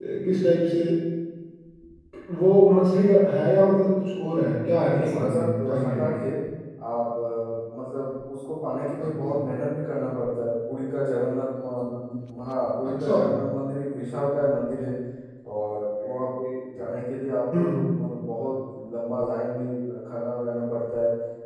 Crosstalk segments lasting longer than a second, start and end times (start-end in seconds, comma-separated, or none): 4.9-6.2